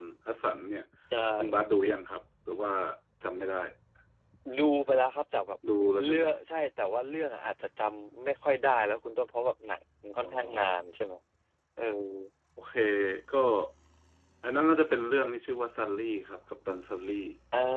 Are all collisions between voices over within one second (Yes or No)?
Yes